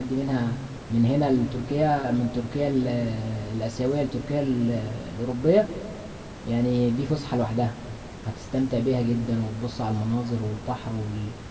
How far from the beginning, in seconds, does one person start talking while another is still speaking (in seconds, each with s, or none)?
none